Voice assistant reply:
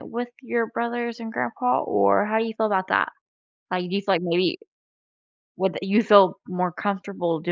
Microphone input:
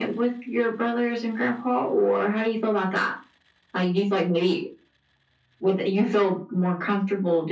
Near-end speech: none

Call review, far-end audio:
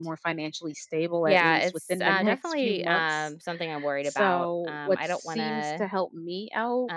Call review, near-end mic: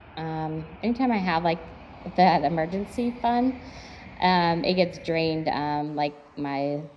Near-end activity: present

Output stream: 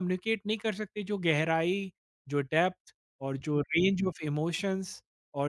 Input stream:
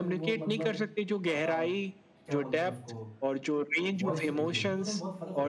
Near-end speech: present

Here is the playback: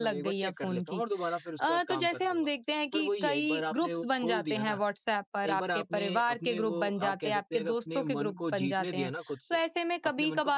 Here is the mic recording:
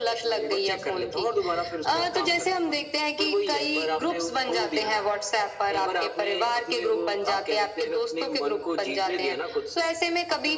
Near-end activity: none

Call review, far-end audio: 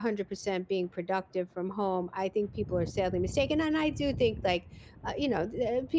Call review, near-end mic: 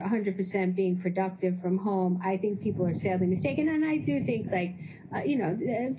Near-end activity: none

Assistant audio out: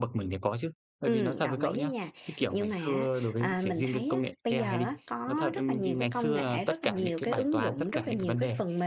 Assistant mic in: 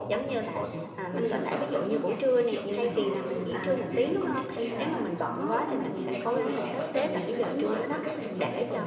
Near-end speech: present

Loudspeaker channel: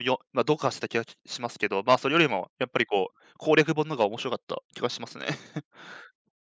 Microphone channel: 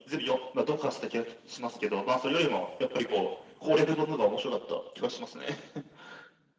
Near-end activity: none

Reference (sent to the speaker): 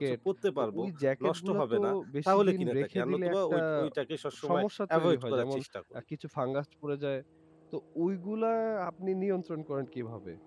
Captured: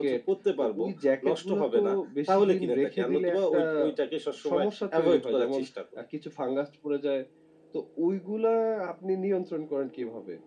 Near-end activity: none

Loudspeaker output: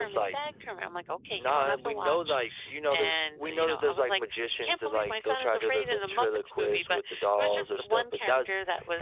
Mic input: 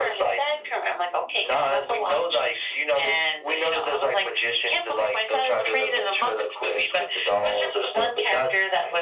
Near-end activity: none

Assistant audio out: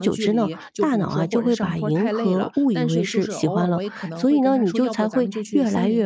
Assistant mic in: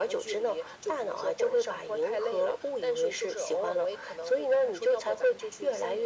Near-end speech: none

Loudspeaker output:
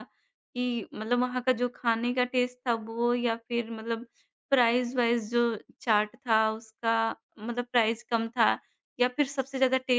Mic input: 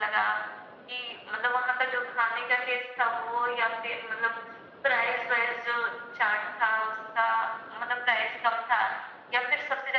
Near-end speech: none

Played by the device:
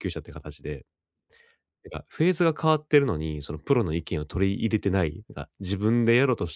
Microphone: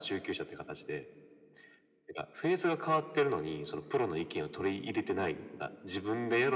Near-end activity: none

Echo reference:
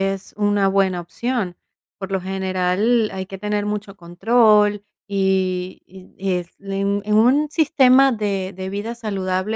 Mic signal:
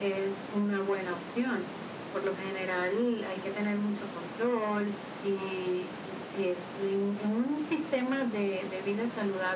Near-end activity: none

